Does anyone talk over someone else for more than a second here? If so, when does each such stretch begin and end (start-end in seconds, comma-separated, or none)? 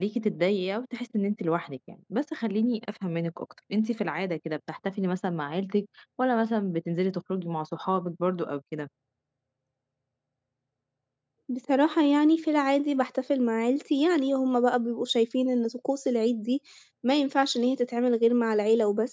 none